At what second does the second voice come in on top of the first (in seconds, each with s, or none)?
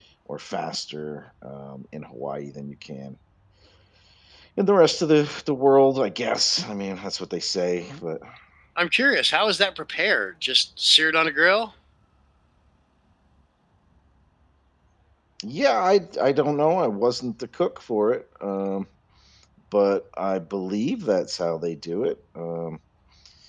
none